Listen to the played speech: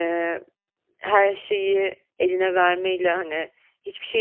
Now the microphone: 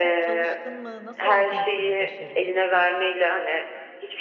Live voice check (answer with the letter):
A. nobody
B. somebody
B